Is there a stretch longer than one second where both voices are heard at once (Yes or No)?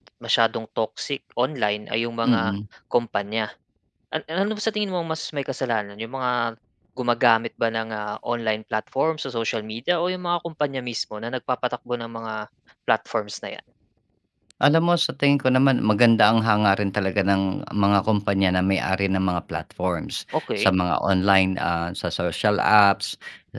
No